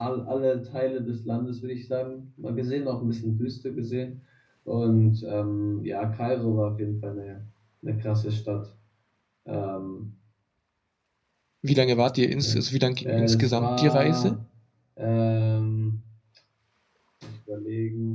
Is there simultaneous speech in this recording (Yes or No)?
Yes